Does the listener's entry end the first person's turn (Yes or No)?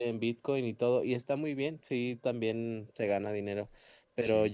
No